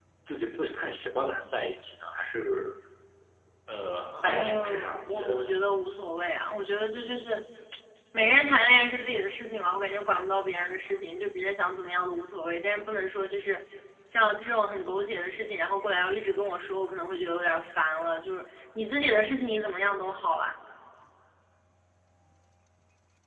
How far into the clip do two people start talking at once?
4.1 s

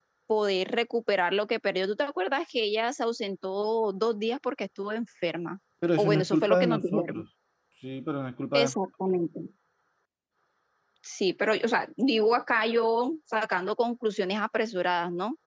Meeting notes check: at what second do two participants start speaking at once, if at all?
5.8 s

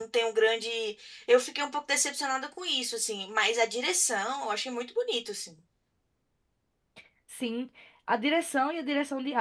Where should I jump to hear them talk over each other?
none

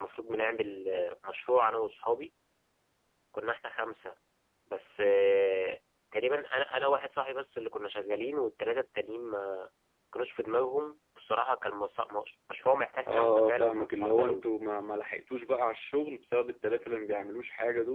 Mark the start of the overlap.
13.0 s

